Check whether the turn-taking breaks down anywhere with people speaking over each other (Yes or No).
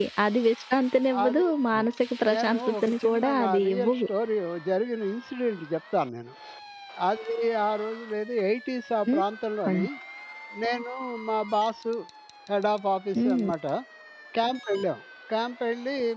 Yes